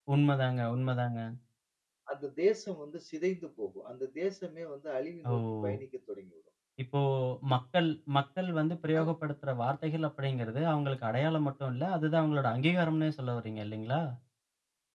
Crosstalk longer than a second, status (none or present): none